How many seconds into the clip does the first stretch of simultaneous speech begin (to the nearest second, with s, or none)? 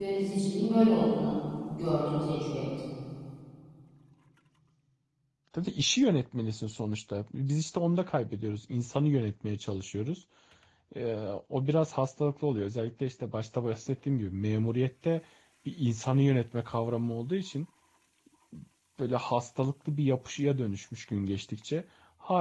none